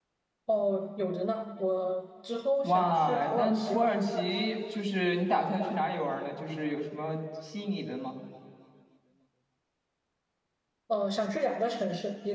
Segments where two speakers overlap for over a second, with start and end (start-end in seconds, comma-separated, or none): 2.6-4.0